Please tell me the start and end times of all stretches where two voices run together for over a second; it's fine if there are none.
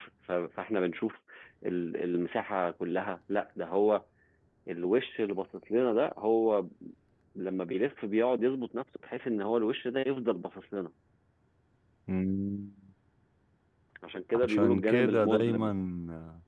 14.4-15.7

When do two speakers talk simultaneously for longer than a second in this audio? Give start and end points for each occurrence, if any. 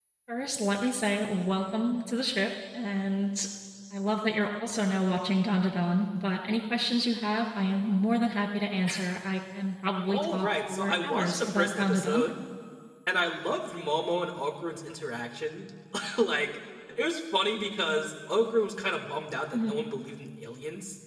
10.1-12.2

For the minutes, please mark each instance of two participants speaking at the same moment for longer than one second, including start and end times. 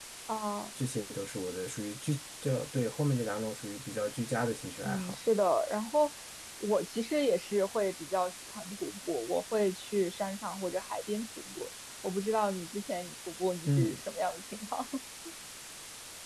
none

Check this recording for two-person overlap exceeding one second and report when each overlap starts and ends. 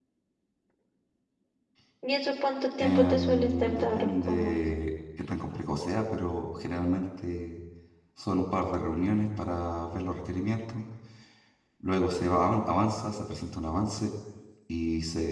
2.8-4.6

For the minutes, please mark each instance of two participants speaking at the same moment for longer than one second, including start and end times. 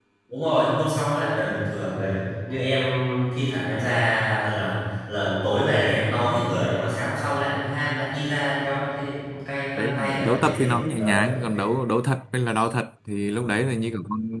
9.8-11.2

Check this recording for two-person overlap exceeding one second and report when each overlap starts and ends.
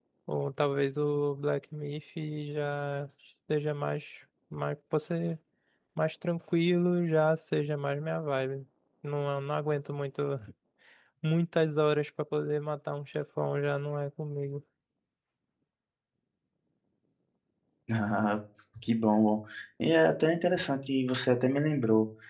none

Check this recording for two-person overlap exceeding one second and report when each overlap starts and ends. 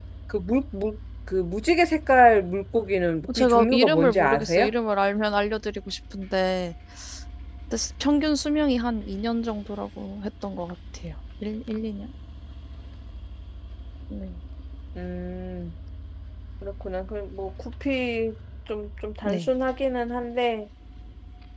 3.4-4.7

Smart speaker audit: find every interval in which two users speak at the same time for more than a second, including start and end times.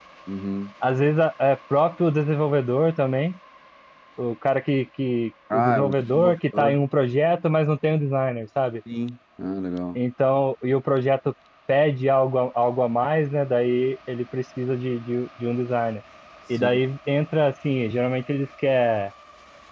5.5-6.8

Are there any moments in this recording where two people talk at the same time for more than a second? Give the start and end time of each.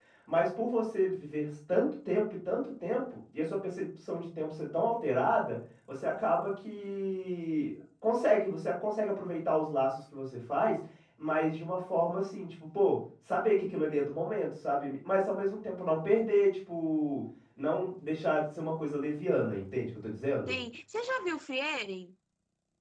none

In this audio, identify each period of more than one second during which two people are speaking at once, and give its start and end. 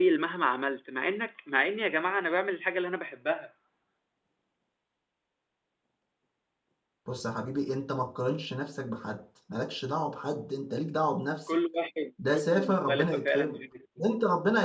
12.2-13.6

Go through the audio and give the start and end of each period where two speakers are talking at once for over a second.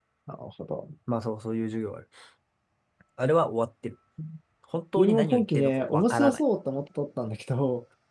5.0-6.4

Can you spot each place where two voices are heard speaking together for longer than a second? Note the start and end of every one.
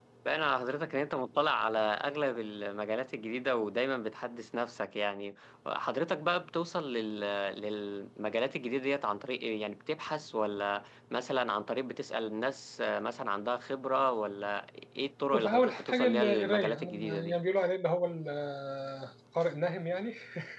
15.3-17.4

